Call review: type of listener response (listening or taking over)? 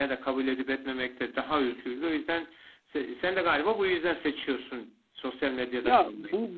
taking over